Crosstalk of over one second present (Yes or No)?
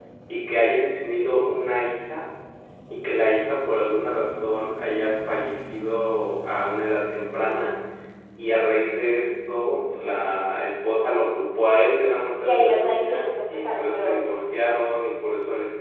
Yes